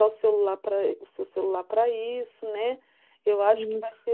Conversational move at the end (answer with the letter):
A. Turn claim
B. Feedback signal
B